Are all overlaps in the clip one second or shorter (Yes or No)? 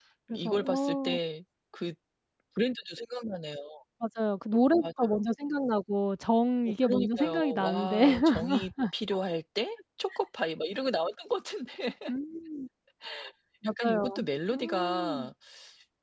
No